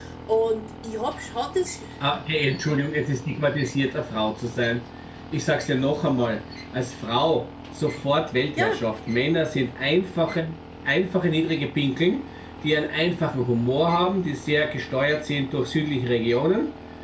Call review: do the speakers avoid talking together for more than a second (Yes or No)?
Yes